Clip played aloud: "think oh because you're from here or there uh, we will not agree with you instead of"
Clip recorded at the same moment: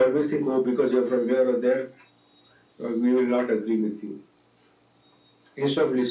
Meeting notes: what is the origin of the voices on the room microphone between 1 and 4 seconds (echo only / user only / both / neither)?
echo only